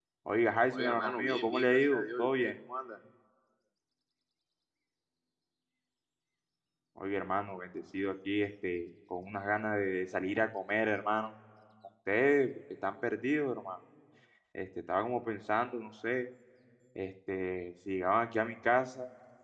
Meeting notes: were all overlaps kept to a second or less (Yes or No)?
No